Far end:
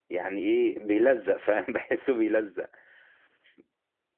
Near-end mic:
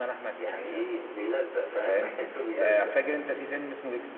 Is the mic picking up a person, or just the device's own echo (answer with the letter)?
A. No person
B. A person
B